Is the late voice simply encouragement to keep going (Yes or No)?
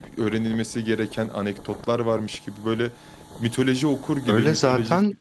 No